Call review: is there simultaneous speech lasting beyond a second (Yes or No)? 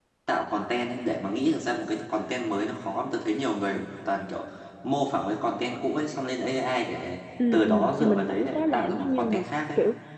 Yes